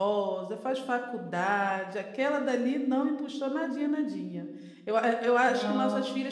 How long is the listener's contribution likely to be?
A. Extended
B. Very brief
B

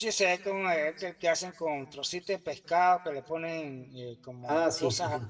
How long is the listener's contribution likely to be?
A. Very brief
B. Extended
B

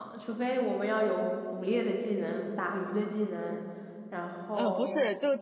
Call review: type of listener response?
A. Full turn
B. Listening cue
A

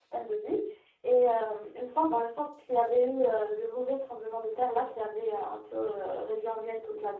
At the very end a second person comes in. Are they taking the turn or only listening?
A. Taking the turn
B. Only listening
B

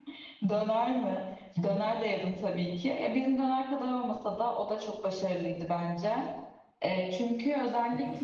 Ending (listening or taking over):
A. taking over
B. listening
B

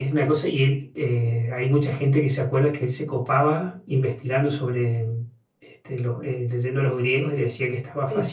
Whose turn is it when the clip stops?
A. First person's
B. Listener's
A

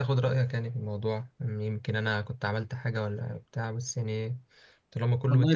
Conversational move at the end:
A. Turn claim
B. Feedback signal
A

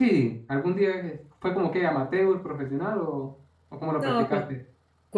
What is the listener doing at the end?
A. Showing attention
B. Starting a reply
B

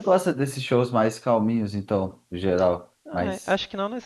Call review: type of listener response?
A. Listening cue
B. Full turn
B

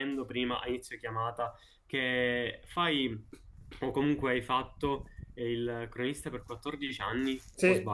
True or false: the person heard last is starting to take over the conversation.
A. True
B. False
A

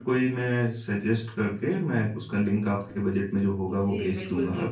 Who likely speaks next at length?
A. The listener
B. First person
A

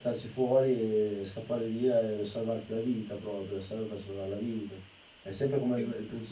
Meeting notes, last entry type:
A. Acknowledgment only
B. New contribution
A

